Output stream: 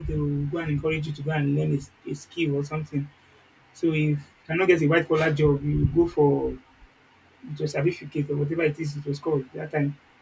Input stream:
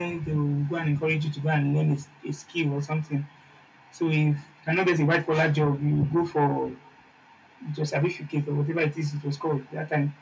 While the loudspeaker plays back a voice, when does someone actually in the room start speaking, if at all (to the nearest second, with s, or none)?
none